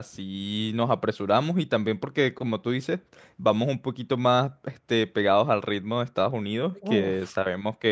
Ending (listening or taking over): listening